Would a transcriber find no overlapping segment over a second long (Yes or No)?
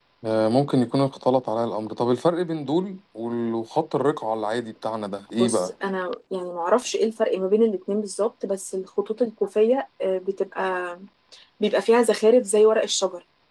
Yes